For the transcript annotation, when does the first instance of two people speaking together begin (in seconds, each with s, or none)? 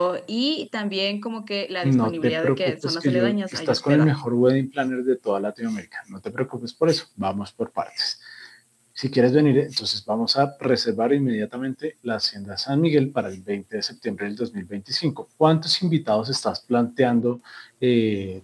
1.8 s